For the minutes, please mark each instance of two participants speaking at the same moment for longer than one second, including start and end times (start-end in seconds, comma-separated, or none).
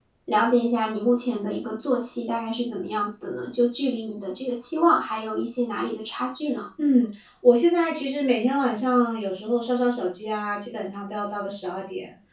none